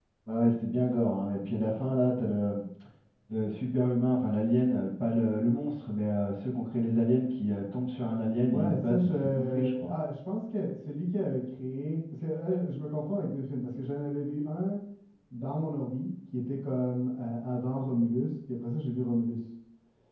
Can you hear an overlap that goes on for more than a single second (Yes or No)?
Yes